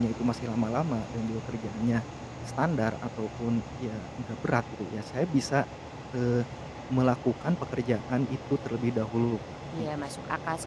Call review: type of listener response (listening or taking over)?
taking over